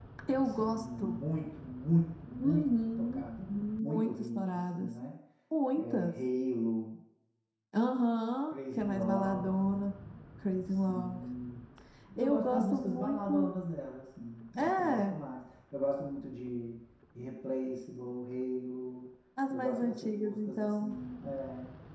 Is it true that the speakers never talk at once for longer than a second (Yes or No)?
No